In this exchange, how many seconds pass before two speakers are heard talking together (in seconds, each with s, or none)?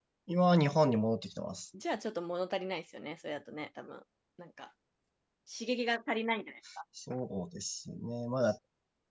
none